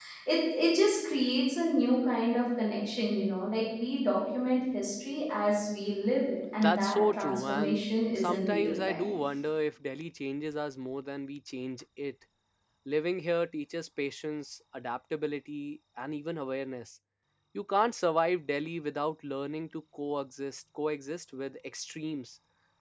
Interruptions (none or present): present